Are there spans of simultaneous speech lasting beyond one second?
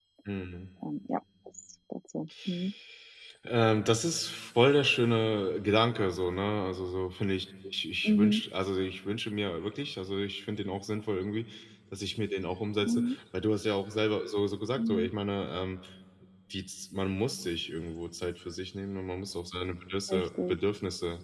No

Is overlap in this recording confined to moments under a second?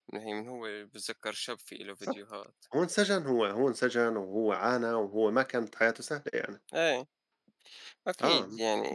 Yes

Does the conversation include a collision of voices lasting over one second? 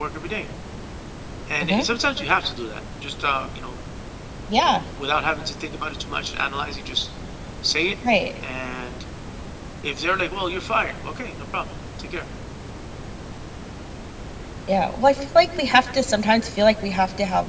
No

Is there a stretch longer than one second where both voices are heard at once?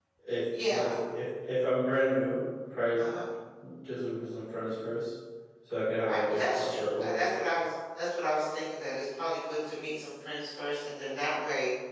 Yes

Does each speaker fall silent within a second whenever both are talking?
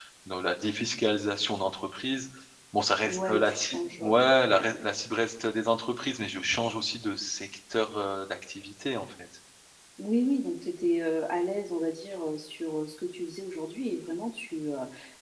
No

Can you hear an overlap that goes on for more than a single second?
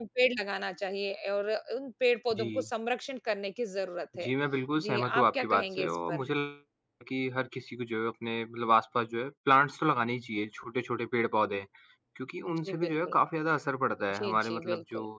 Yes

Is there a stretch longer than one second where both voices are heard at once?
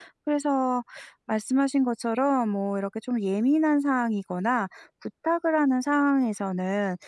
No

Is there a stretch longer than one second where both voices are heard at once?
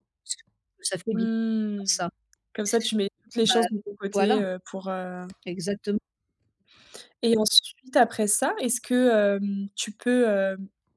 No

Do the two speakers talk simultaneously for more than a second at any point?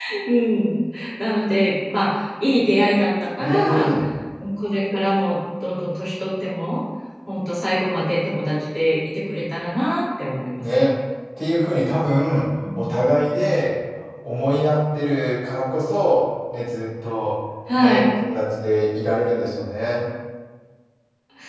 No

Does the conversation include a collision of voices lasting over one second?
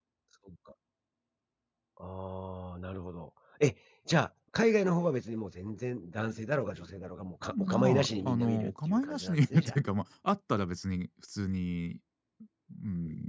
Yes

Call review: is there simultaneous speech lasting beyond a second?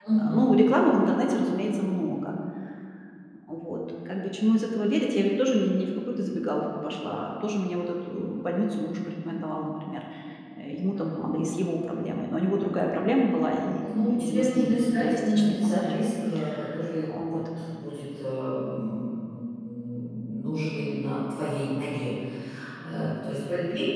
Yes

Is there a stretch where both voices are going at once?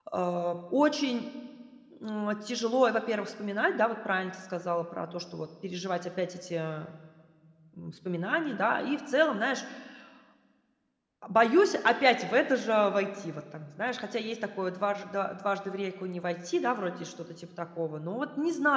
No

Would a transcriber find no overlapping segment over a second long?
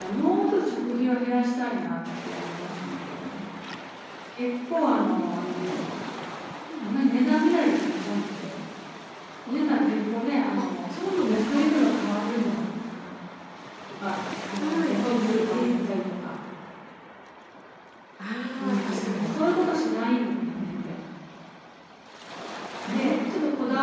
No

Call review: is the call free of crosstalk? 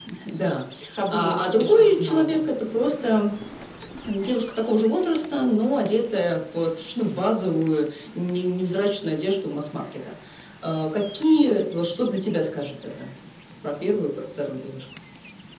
No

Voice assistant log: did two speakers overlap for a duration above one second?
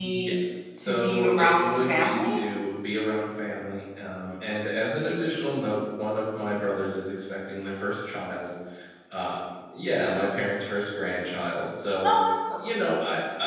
Yes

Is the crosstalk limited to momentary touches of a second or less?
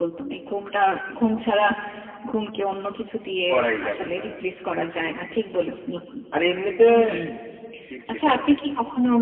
Yes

